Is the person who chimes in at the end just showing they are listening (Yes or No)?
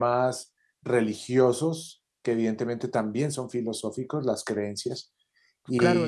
No